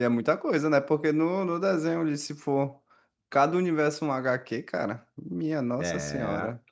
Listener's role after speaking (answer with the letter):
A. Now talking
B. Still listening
A